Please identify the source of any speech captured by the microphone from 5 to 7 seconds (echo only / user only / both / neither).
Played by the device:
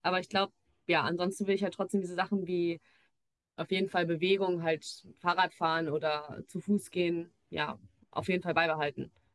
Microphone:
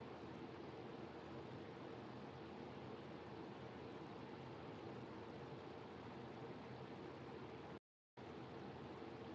neither